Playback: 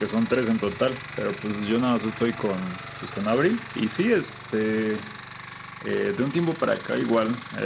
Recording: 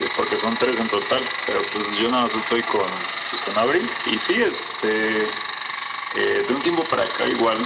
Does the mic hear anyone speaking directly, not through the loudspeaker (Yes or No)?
No